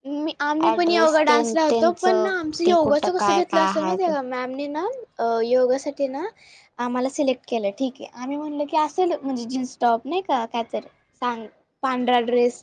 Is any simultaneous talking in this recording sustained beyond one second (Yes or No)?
Yes